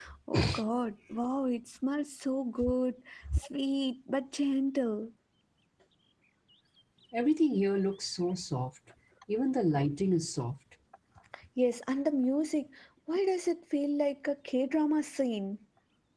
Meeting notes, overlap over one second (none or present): none